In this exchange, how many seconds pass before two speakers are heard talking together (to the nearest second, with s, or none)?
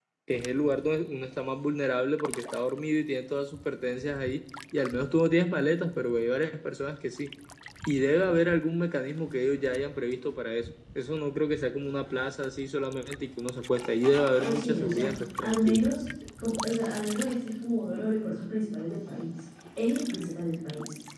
14 s